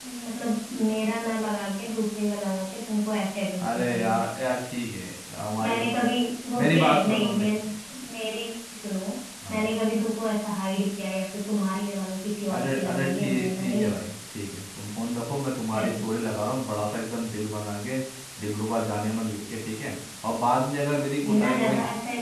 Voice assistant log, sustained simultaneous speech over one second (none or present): present